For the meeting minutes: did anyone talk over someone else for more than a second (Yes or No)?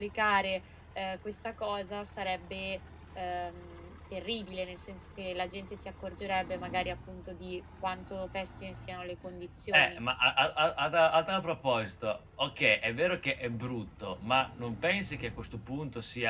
No